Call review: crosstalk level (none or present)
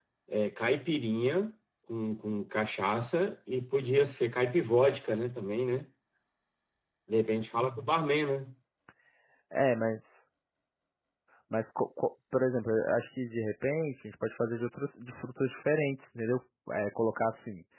none